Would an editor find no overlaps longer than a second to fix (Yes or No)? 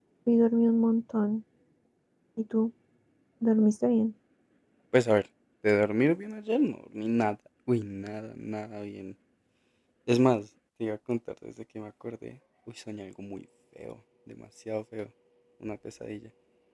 Yes